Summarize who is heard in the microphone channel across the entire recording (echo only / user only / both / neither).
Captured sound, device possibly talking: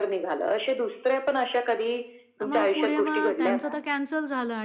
both